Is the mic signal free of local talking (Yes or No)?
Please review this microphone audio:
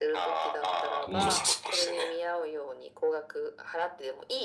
No